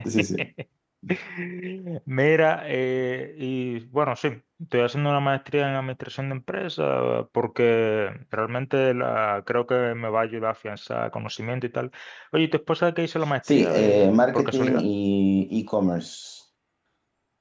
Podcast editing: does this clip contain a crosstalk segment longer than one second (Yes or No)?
Yes